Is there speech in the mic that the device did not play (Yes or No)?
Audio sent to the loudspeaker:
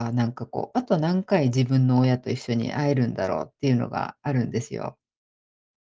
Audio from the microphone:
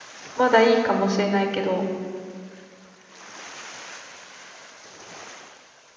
Yes